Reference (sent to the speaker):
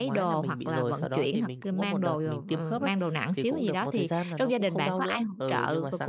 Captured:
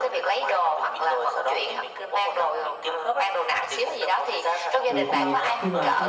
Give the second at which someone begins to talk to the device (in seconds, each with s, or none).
4.9 s